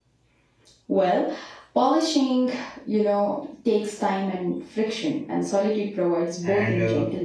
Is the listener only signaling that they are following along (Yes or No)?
No